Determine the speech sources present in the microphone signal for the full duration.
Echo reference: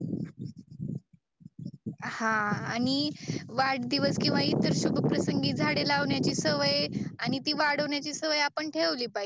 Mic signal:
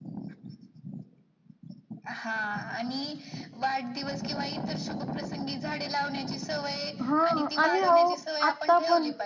both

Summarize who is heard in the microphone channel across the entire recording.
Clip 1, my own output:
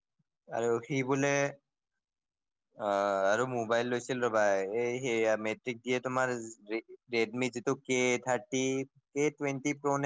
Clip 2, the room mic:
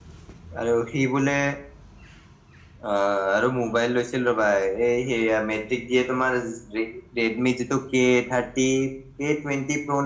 echo only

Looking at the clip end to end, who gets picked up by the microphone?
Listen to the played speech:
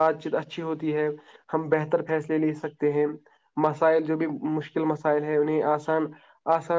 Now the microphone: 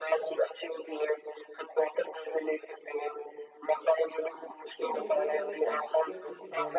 both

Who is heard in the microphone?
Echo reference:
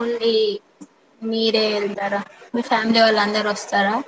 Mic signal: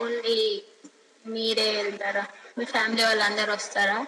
echo only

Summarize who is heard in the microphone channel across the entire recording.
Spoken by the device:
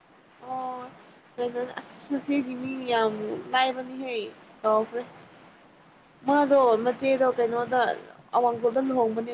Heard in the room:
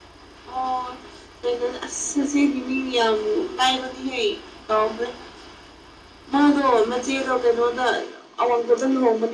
echo only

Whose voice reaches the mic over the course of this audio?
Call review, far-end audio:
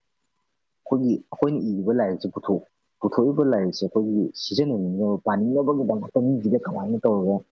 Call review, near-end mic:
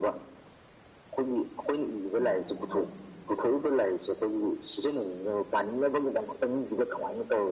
both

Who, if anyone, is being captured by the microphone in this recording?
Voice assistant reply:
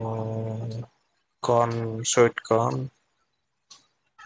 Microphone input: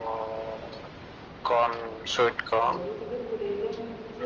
both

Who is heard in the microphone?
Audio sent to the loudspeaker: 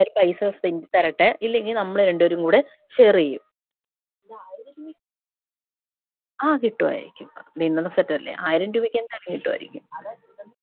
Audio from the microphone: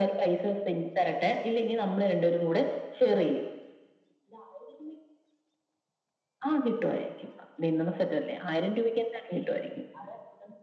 echo only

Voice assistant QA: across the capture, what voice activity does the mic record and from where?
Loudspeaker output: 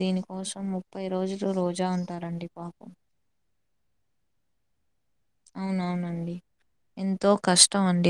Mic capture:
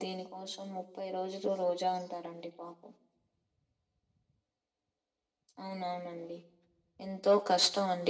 echo only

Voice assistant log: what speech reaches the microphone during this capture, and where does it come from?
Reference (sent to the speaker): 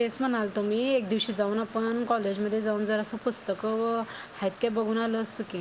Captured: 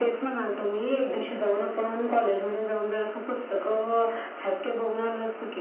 echo only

